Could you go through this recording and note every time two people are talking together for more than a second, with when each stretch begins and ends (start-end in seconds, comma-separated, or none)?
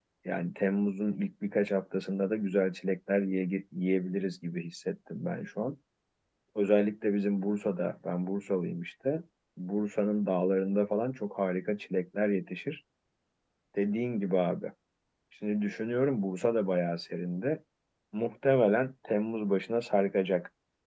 none